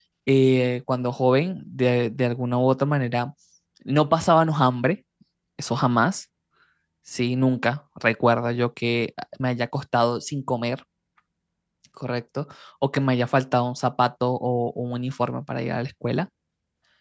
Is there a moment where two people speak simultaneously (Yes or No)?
No